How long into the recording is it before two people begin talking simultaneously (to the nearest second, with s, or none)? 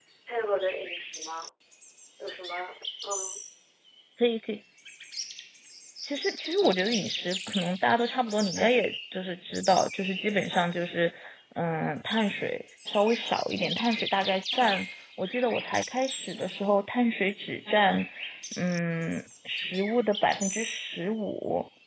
none